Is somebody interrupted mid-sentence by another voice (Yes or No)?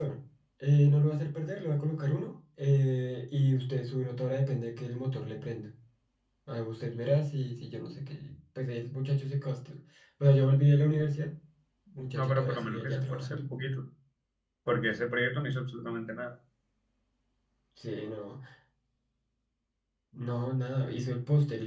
Yes